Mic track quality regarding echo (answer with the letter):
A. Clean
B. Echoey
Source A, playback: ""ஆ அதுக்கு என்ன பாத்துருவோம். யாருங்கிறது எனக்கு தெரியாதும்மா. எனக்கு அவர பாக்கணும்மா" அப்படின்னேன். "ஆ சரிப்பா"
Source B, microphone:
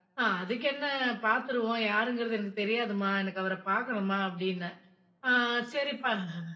B